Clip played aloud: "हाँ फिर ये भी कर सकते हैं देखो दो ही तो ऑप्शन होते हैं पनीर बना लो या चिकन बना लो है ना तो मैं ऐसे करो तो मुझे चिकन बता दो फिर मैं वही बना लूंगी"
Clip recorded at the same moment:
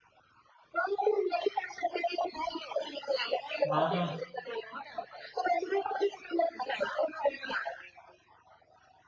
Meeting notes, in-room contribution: present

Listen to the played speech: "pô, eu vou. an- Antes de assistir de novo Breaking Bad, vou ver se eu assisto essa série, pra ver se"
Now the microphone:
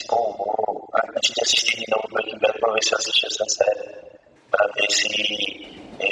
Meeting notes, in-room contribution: none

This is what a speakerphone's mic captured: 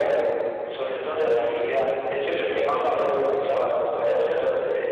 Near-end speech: present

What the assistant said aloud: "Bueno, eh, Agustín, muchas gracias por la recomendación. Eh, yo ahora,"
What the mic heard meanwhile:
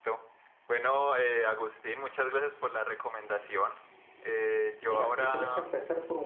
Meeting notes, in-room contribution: present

